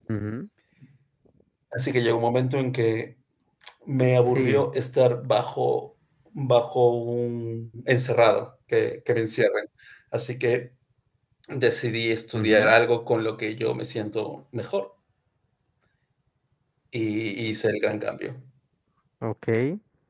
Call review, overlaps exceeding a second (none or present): none